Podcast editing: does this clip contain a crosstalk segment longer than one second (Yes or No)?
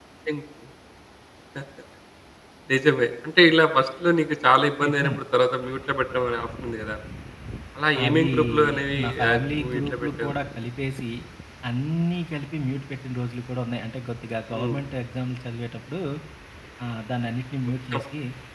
Yes